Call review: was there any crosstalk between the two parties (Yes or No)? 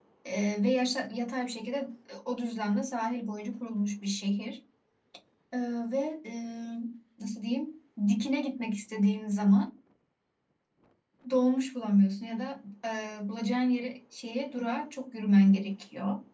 No